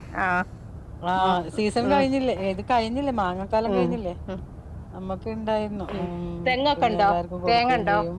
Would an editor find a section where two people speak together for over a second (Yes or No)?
No